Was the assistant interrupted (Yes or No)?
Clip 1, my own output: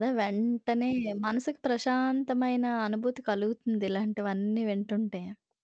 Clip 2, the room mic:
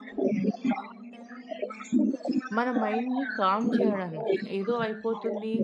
Yes